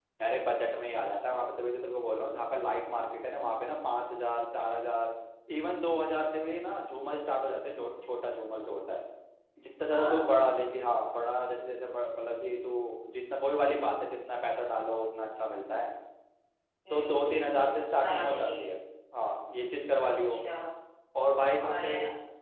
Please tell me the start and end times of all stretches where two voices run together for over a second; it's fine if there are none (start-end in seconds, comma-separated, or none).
16.9-18.8